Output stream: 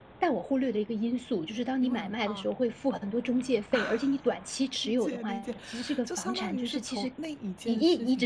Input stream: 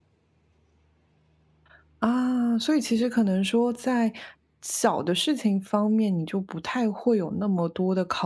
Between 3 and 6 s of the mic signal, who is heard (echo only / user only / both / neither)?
user only